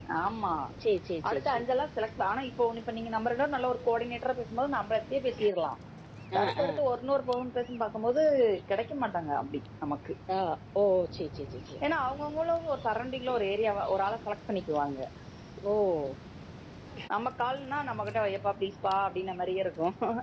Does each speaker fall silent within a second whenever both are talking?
Yes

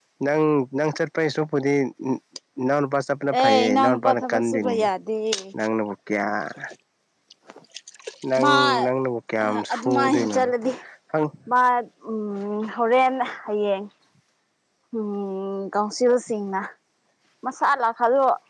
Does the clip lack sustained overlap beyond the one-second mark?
No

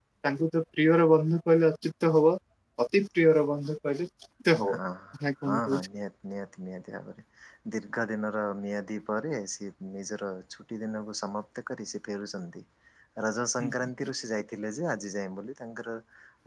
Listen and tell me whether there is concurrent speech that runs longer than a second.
No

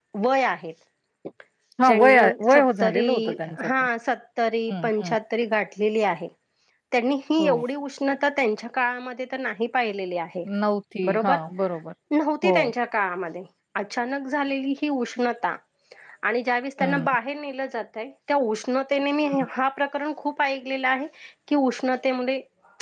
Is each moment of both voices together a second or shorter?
No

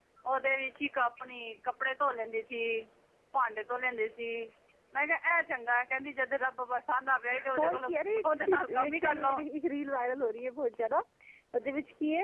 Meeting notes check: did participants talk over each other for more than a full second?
Yes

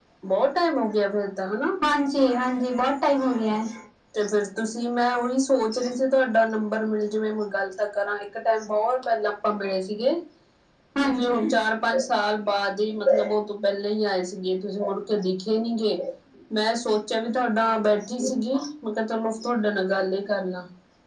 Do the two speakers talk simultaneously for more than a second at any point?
No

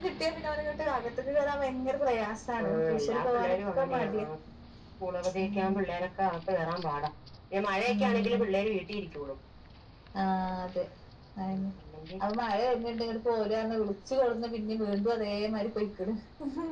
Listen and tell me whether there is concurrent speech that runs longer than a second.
Yes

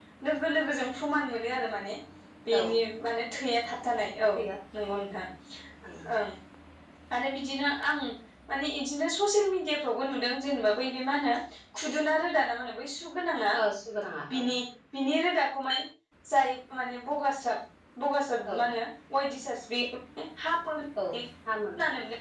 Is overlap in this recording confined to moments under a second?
Yes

